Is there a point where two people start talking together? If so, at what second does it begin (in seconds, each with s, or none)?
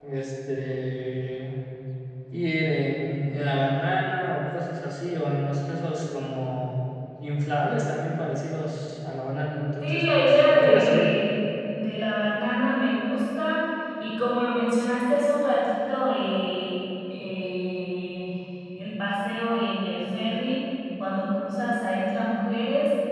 9.8 s